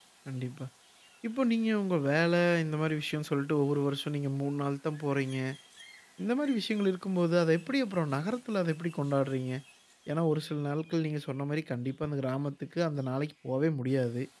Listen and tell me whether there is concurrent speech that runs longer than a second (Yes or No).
No